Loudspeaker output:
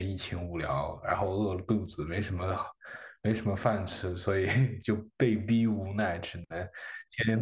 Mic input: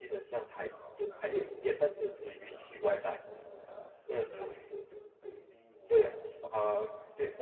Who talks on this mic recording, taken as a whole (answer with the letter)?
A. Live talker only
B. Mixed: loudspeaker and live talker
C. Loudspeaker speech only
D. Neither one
B